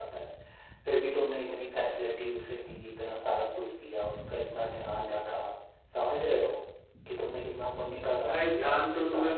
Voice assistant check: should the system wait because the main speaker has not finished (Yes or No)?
No